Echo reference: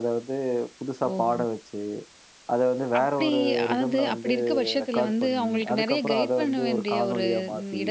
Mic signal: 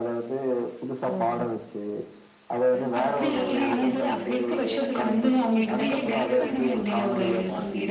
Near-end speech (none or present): present